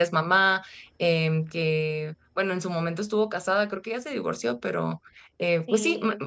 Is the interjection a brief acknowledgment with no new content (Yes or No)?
Yes